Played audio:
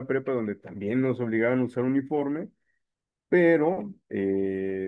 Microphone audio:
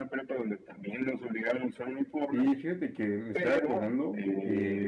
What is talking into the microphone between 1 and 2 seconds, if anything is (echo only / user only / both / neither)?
echo only